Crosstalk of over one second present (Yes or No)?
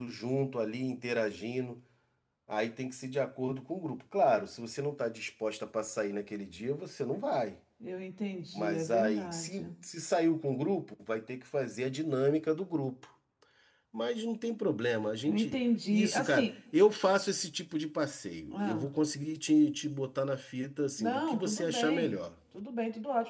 Yes